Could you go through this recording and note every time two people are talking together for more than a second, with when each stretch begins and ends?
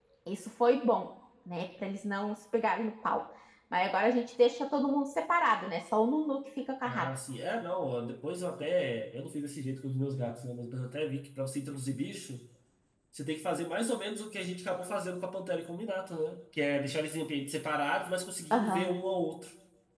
none

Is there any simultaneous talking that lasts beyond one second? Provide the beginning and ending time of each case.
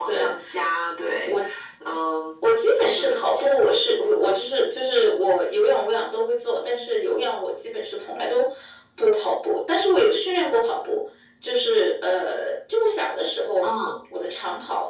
none

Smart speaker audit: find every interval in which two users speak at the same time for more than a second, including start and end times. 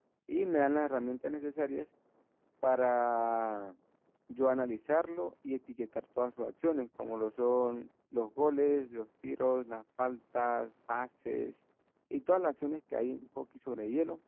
none

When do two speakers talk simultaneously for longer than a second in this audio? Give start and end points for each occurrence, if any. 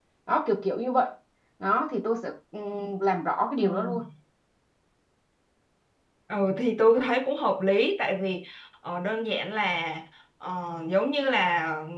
none

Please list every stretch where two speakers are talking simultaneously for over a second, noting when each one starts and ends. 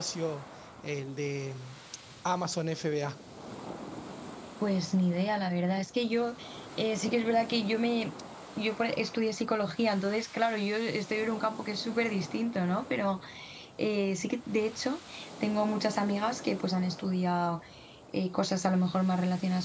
none

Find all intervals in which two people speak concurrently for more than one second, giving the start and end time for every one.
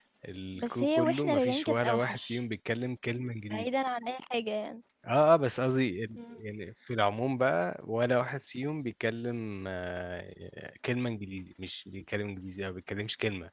0.6-2.4

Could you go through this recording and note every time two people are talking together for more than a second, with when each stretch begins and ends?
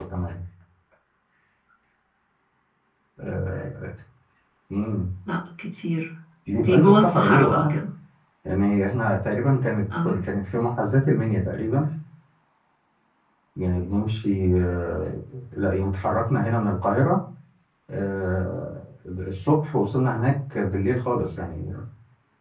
6.5-7.7

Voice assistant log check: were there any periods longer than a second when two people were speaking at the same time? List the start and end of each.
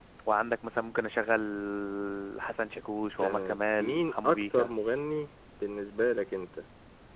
3.2-4.7

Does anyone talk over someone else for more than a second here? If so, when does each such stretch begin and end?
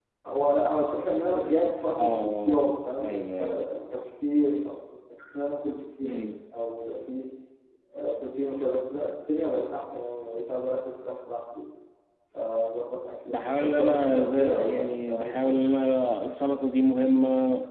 2.0-3.6, 13.3-15.6

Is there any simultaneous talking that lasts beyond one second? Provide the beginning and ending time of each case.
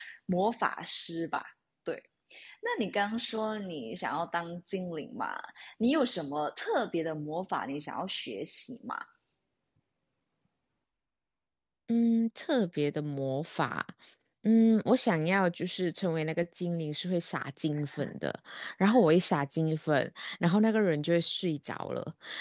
none

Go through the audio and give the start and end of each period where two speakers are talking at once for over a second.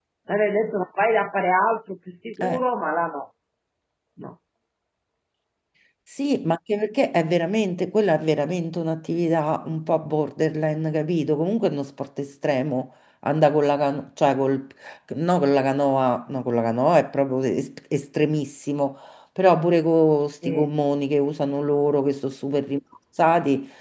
none

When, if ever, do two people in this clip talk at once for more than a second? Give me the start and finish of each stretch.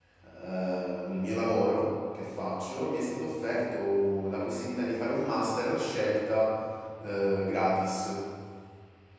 none

